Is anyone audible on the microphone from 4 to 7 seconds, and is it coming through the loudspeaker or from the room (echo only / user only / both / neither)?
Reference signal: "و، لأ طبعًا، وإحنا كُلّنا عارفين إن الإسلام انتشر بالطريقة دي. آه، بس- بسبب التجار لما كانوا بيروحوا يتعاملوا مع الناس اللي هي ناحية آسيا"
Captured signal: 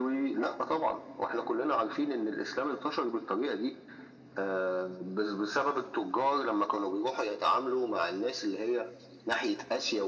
echo only